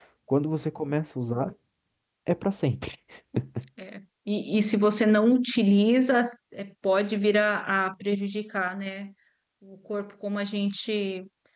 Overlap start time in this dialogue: none

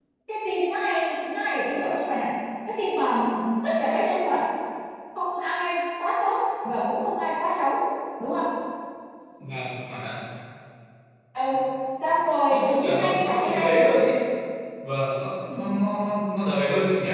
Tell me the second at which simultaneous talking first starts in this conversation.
12.5 s

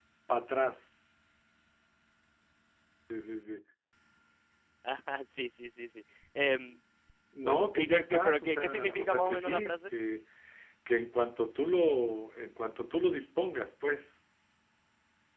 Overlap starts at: 7.4 s

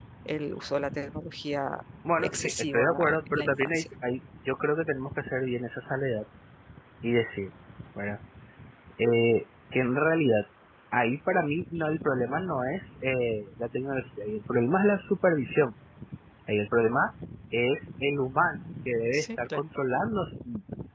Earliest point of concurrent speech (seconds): 2.2 s

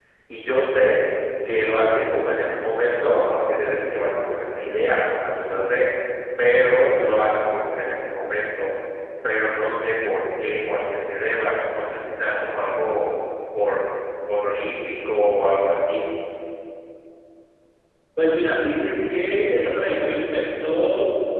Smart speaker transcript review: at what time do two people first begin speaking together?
none

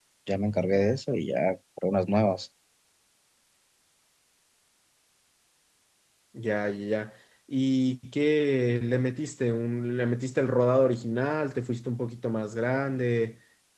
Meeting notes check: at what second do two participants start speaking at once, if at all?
none

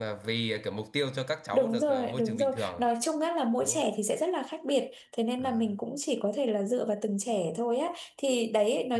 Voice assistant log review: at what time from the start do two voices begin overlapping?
1.5 s

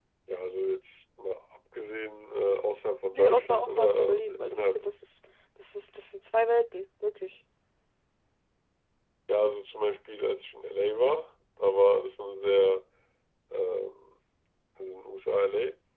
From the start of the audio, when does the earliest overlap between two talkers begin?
3.1 s

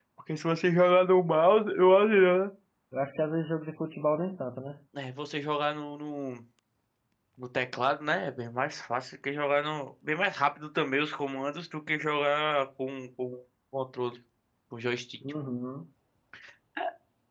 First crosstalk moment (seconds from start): none

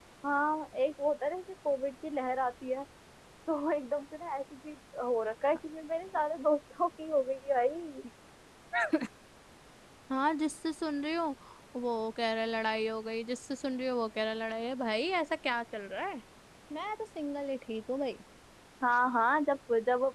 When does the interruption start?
none

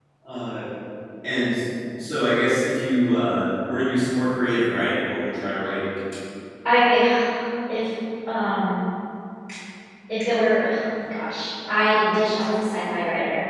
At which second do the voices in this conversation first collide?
none

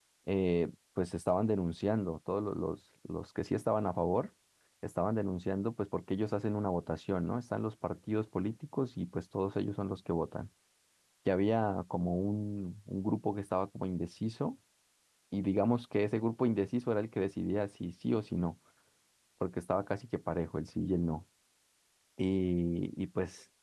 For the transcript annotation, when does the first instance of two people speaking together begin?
none

